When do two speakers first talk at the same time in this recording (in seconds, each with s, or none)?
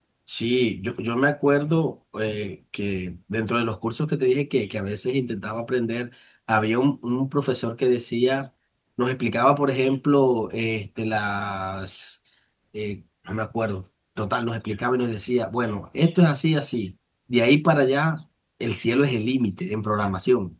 none